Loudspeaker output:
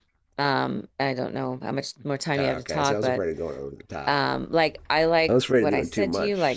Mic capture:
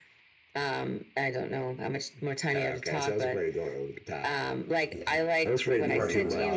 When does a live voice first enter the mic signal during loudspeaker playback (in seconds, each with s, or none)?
4.9 s